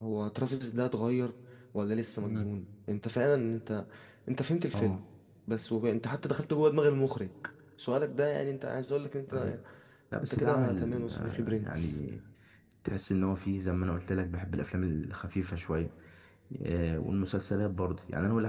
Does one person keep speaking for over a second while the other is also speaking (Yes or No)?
Yes